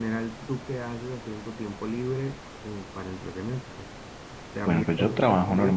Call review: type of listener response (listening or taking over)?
taking over